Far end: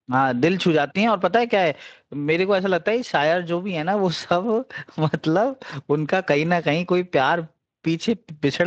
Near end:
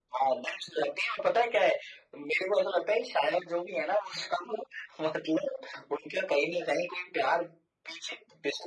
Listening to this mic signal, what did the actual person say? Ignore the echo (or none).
none